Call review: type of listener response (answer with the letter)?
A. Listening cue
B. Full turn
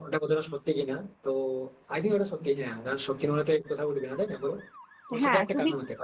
B